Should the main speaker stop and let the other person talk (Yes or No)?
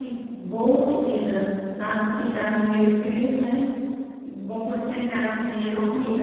Yes